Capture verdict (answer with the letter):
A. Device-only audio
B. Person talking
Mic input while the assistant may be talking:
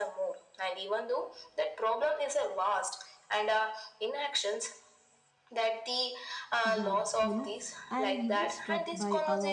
B